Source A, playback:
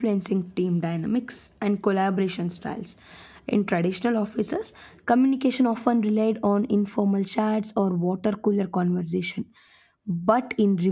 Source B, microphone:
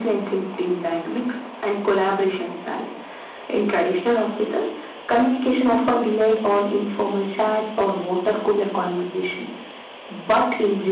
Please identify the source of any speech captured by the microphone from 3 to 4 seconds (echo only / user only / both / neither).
echo only